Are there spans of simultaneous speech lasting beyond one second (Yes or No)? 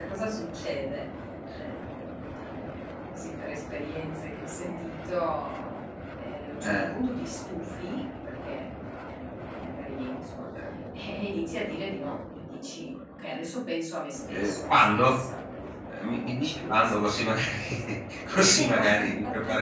Yes